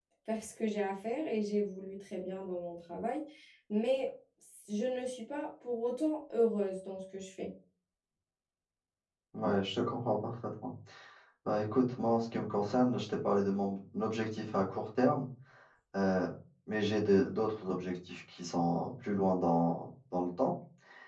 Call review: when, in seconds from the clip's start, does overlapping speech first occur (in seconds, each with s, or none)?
none